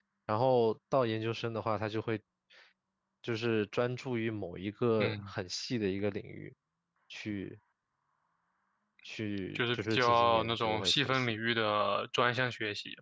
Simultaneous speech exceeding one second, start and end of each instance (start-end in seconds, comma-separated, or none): 9.6-11.3